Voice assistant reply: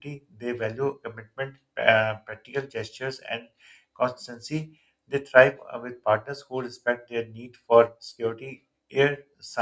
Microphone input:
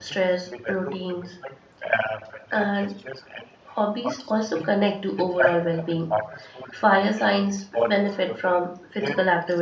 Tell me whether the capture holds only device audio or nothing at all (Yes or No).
No